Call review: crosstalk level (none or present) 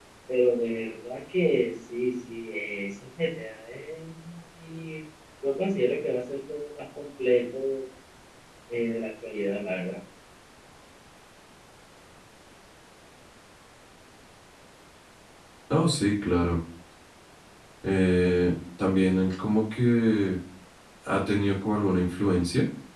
none